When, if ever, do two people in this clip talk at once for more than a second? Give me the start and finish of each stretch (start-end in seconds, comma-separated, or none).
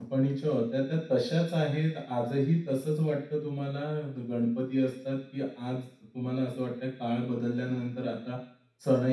none